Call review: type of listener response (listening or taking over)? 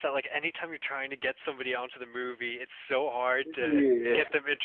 listening